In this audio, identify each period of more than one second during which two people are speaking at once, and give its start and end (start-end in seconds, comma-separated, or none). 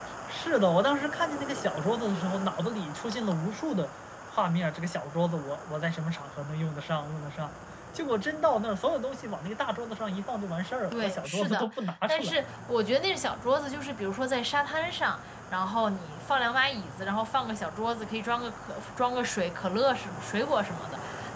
10.9-12.4